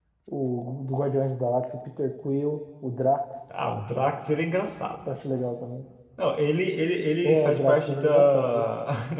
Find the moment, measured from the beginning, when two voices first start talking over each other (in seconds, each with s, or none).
7.2 s